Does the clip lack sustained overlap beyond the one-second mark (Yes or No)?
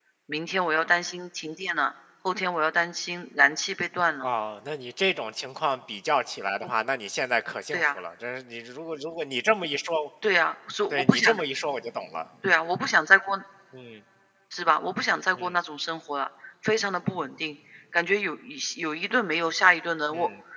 Yes